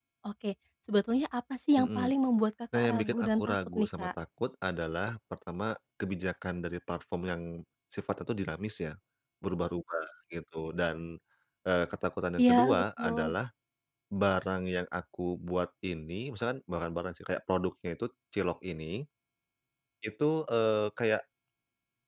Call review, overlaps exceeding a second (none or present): present